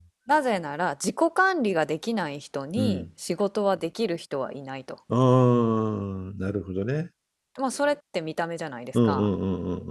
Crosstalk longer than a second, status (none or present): none